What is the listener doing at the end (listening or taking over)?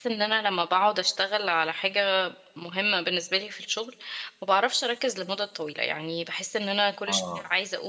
listening